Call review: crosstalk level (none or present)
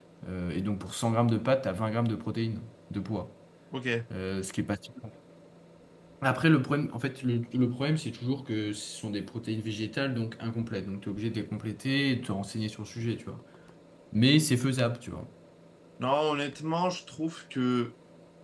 none